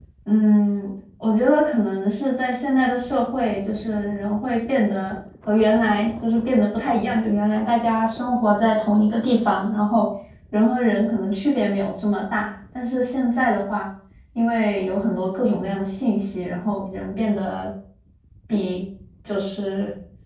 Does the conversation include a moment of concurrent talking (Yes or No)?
No